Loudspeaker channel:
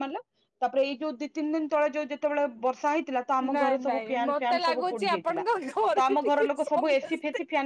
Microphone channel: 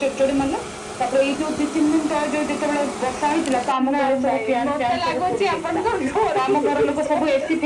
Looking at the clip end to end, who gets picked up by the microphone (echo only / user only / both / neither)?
echo only